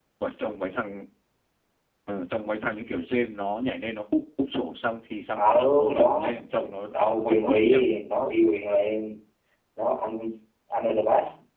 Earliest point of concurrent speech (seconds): 5.3 s

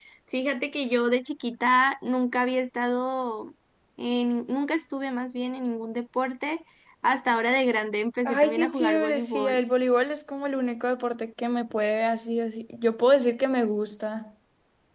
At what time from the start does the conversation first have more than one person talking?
8.2 s

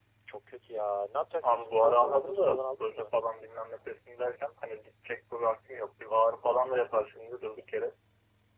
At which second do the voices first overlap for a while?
1.4 s

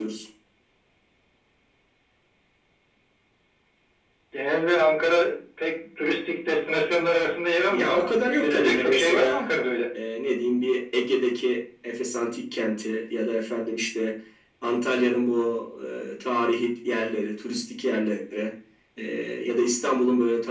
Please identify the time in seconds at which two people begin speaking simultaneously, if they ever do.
7.7 s

